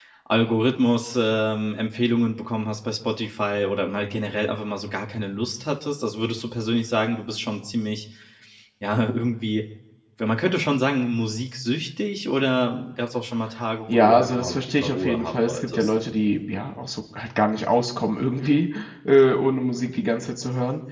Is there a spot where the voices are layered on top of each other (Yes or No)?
Yes